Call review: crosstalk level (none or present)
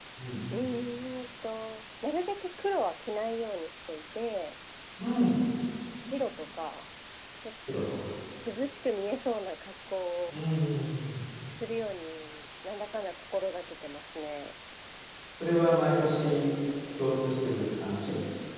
none